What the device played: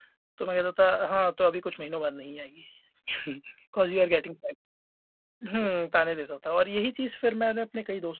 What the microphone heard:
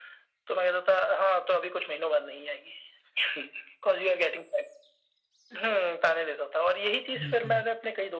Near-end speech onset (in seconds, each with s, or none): 7.2 s